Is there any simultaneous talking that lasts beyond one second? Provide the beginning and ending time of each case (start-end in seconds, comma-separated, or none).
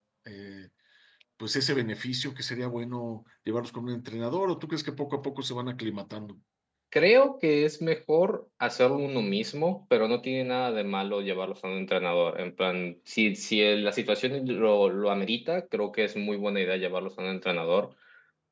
none